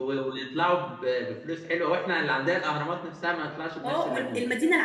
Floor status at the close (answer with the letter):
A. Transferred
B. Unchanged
A